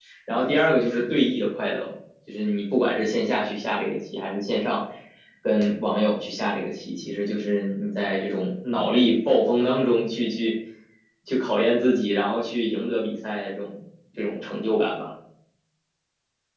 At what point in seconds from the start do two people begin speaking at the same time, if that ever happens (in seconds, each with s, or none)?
none